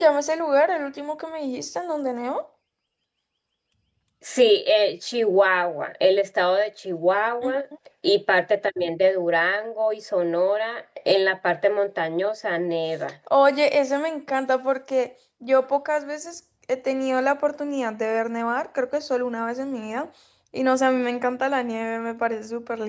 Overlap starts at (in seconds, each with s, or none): none